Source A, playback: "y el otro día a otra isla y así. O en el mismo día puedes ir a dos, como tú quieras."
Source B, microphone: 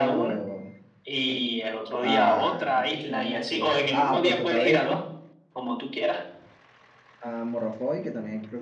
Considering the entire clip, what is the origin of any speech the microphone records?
both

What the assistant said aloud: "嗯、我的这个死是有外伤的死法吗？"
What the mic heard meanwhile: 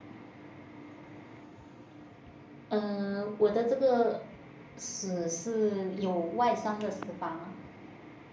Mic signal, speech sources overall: echo only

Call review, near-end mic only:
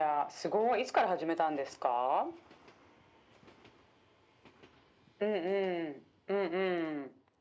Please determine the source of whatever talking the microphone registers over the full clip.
echo only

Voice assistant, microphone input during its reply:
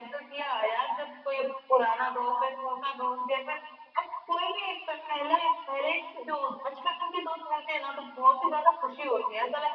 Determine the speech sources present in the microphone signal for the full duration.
echo only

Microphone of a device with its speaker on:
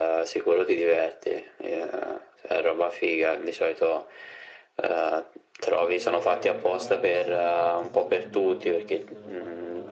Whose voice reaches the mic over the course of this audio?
both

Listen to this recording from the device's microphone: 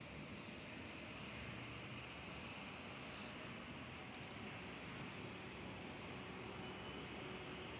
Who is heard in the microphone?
neither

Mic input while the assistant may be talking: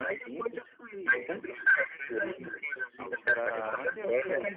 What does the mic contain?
both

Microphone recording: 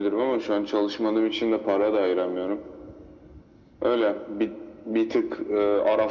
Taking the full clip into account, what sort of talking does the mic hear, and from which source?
echo only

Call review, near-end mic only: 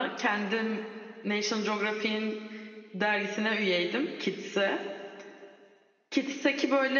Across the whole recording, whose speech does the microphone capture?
echo only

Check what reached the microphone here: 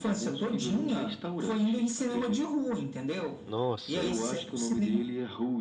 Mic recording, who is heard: both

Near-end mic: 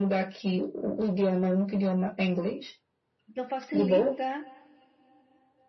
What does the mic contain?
both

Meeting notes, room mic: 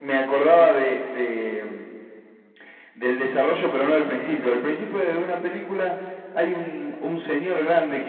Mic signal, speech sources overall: echo only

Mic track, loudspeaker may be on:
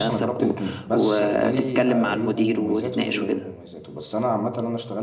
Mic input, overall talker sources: both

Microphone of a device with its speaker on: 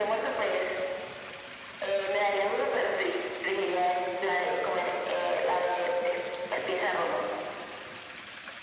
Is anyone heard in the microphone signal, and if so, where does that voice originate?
echo only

